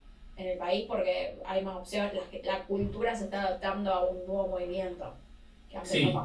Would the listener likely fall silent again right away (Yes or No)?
No